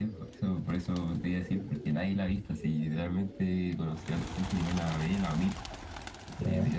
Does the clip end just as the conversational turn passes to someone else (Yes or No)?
No